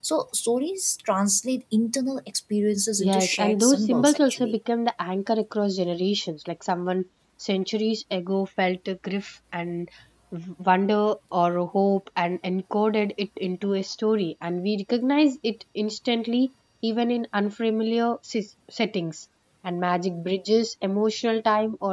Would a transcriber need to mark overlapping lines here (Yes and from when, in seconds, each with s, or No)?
Yes, from 3.0 s